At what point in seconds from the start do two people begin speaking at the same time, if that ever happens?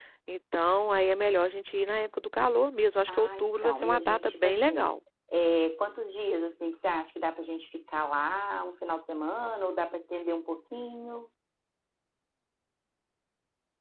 3 s

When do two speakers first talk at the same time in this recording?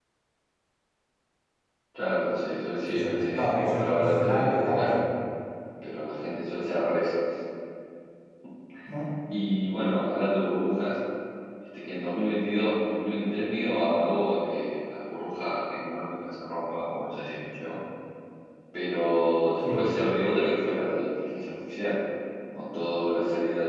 3 s

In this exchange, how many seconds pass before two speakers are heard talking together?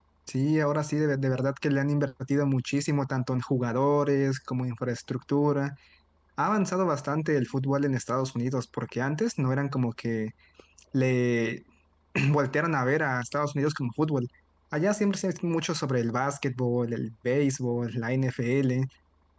none

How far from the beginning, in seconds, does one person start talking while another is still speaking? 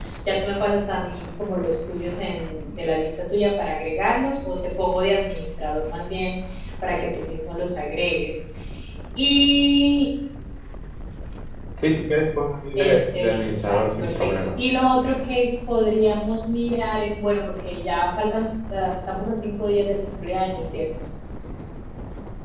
13 s

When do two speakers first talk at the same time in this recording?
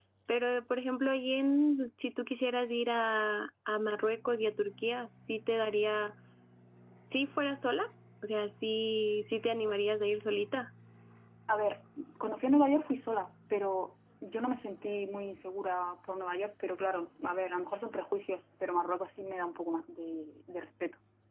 none

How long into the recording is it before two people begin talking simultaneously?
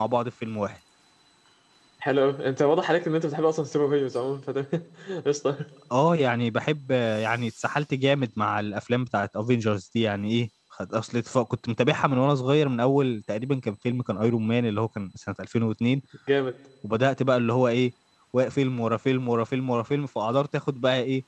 none

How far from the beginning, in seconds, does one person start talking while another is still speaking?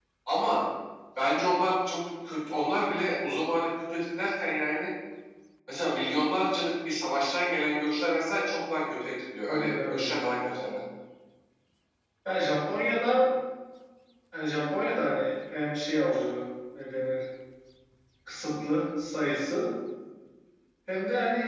9 s

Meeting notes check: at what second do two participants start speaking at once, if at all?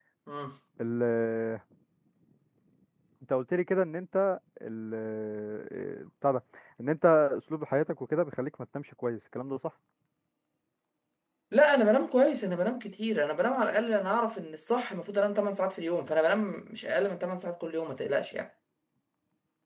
none

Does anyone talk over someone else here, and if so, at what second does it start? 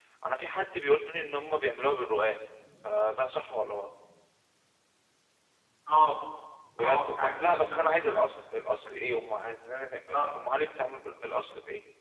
7 s

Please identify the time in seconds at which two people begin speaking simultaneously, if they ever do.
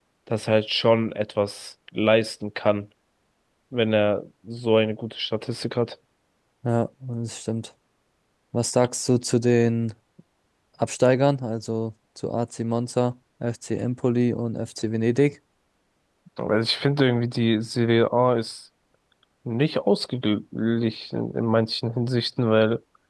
none

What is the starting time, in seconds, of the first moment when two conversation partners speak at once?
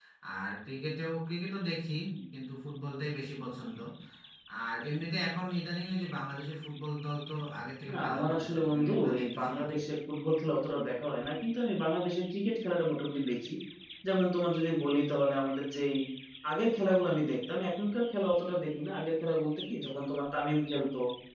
8 s

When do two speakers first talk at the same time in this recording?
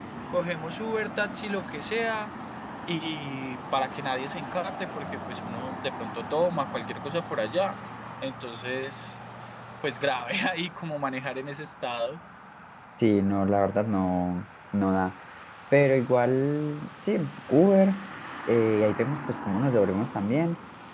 none

